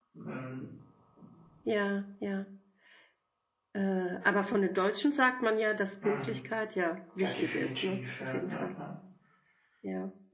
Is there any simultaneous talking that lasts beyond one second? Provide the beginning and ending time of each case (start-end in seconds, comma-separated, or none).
7.2-8.6